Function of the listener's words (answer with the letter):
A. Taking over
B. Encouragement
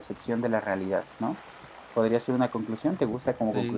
A